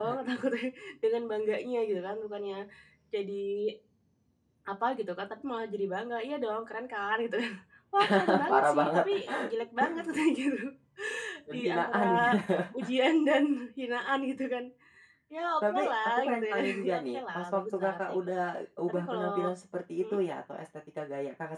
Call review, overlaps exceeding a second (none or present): present